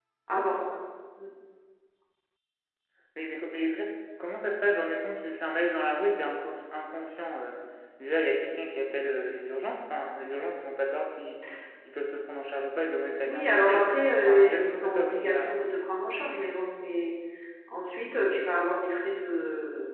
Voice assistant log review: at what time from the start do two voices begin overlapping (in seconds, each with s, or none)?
13.3 s